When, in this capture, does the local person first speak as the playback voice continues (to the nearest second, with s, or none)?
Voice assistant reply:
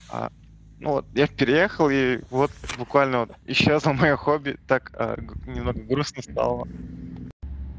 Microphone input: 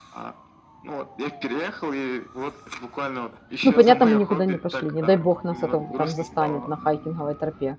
4 s